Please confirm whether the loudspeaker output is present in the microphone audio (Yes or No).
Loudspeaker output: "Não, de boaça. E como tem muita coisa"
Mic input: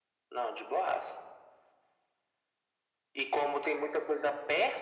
Yes